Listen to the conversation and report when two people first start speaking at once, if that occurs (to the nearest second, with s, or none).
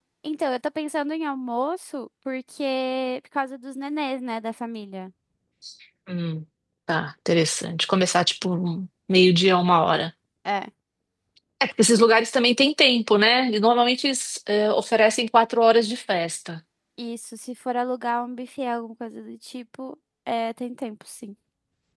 none